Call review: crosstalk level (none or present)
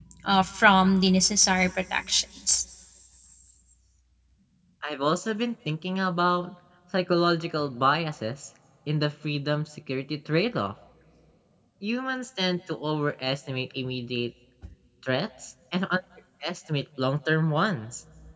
none